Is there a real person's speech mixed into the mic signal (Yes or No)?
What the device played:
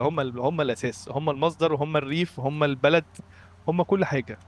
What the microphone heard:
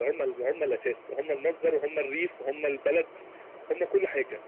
No